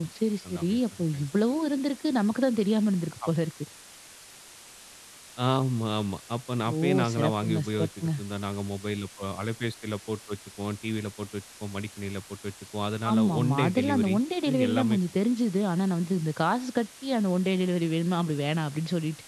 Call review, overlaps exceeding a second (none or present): present